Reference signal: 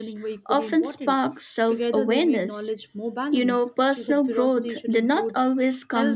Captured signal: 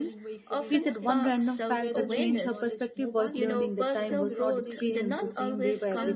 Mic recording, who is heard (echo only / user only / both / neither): both